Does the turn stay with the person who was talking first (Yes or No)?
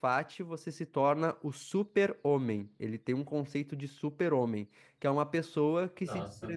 Yes